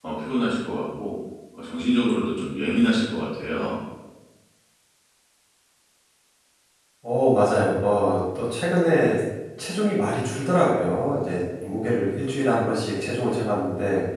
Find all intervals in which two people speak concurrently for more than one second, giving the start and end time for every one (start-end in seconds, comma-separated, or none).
none